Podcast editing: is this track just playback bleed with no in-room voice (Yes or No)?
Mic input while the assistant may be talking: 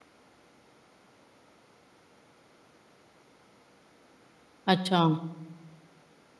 No